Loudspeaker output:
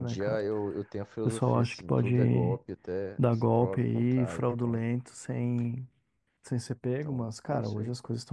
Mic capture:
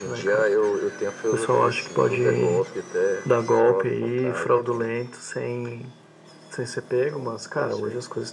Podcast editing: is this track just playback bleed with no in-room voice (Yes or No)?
Yes